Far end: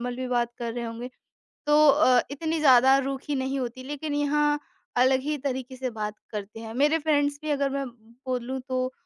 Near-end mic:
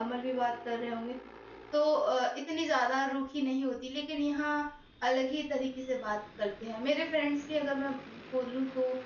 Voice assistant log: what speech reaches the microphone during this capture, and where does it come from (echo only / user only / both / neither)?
echo only